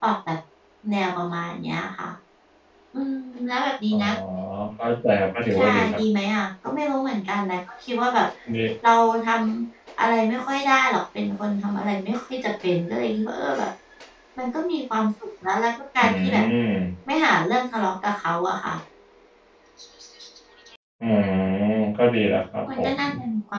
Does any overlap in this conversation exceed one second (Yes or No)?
No